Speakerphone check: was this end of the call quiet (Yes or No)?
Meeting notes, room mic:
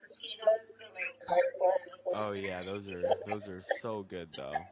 No